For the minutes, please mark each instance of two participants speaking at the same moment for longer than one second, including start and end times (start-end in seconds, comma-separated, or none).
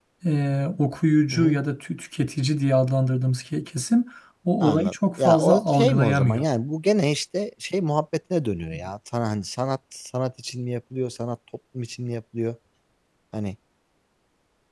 4.6-6.4